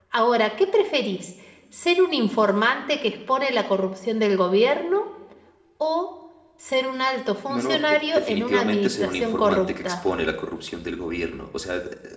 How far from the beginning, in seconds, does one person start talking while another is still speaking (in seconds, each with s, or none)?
7.5 s